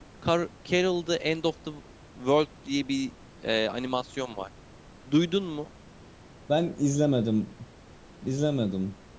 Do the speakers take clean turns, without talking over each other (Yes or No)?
Yes